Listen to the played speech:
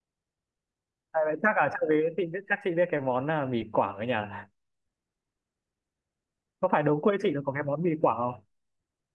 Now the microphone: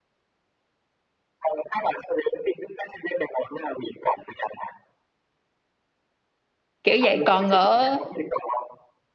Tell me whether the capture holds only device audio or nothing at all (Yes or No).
No